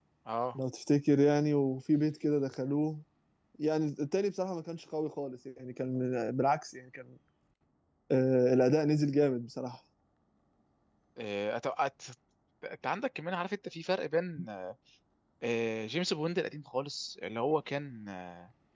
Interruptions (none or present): none